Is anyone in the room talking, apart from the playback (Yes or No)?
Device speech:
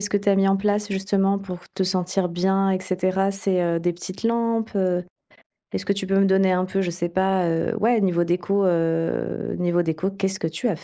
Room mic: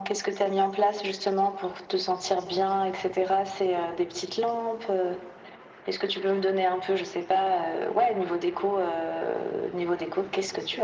No